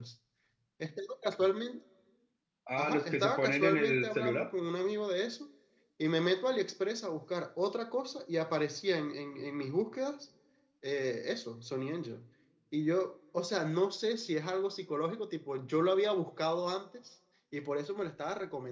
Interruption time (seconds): 2.8 s

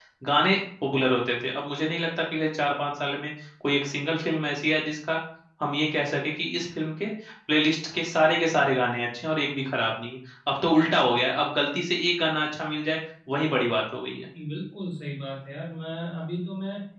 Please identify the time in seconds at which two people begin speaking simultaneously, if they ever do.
none

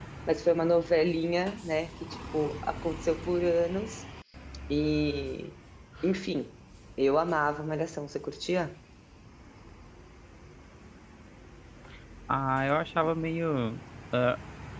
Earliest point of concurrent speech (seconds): none

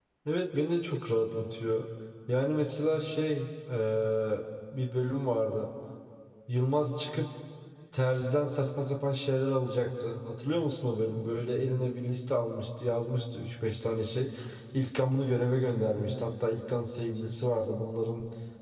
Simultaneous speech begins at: none

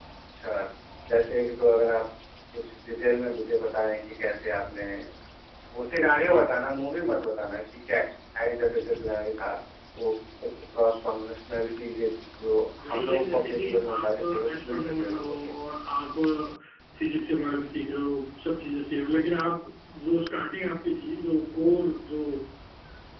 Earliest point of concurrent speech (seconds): 12.8 s

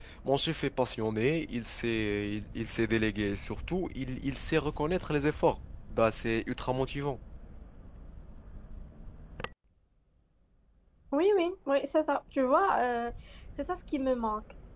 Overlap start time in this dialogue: none

